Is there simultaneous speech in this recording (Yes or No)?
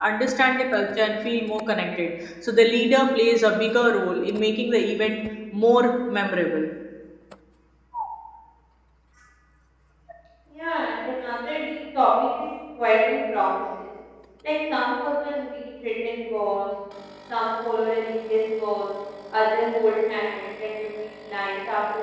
No